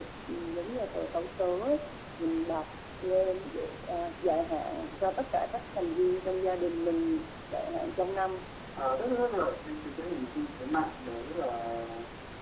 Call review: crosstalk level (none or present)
none